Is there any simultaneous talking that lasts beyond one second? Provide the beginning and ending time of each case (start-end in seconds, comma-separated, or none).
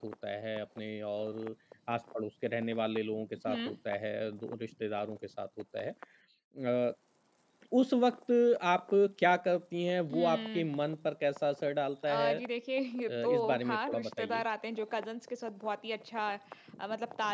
13.1-14.4